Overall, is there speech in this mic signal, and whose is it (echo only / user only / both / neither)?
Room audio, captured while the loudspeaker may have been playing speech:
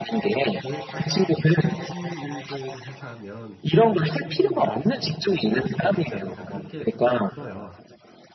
both